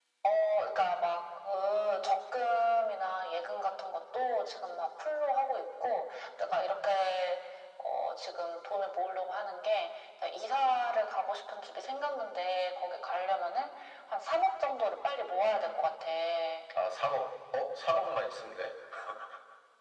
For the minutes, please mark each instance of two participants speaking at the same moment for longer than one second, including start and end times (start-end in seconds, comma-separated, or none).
none